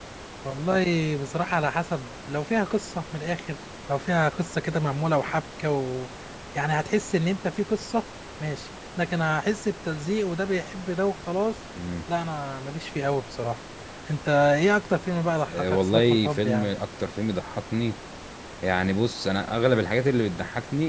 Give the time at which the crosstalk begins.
15.5 s

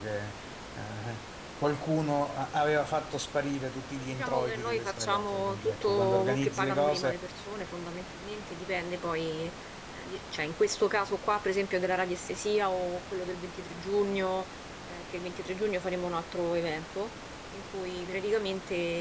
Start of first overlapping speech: 4.0 s

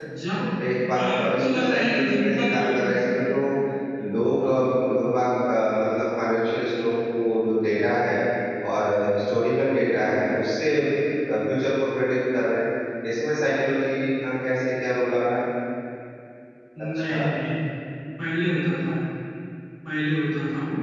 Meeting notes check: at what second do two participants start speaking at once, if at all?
1.0 s

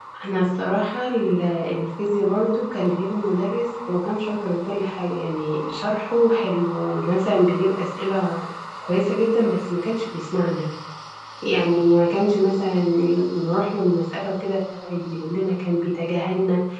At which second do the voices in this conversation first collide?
none

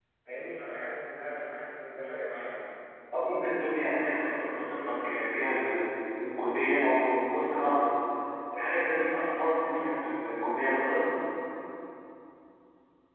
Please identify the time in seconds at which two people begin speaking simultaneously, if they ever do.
none

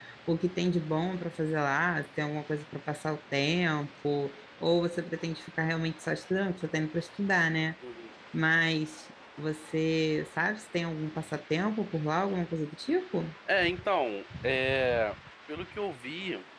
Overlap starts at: none

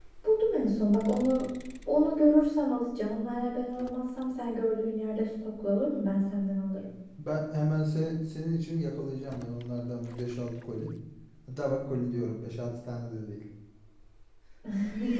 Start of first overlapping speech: none

